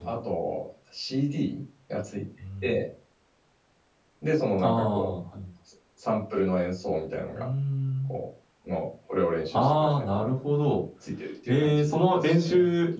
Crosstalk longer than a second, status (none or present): present